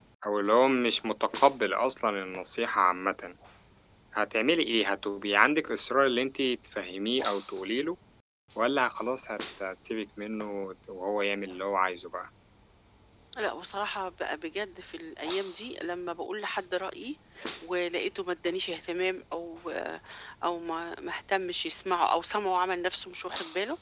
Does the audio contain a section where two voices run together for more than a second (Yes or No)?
No